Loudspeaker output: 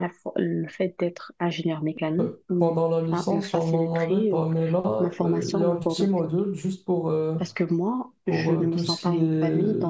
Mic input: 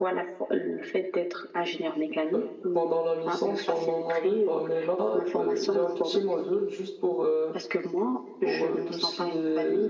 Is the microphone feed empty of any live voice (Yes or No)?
Yes